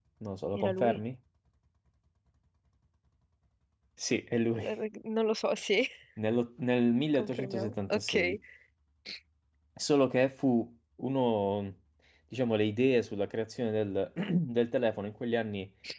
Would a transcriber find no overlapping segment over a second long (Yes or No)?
No